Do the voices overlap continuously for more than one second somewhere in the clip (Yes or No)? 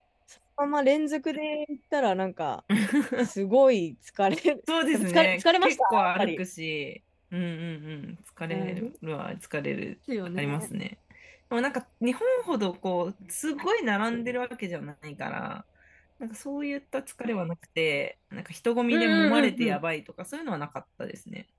Yes